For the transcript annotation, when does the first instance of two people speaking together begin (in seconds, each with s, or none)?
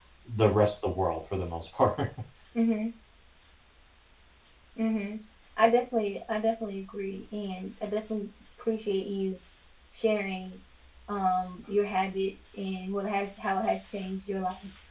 none